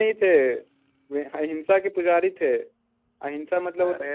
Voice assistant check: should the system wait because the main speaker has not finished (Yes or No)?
Yes